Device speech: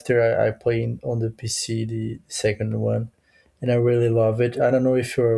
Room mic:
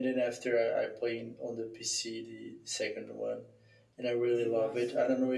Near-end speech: present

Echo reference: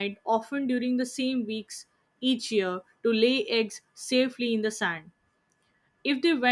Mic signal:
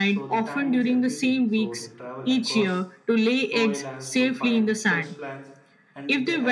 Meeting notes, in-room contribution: present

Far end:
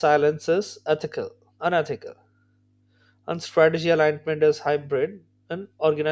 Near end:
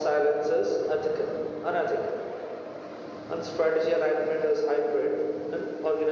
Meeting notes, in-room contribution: none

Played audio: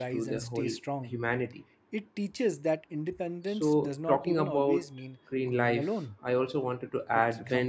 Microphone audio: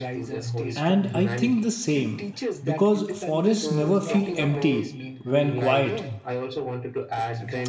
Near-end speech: present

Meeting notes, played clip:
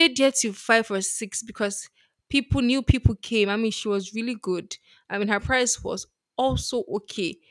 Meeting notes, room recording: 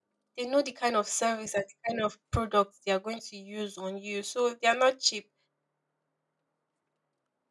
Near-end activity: present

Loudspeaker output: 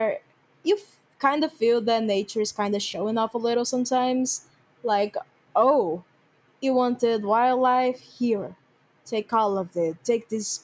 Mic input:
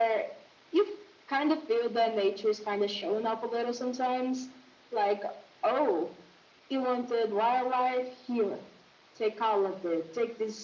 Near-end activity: none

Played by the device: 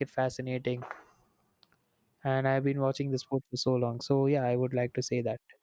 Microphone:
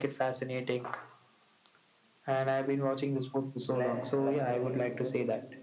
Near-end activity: present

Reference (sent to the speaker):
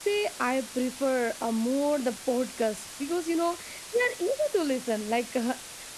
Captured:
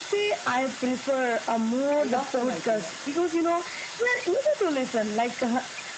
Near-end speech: present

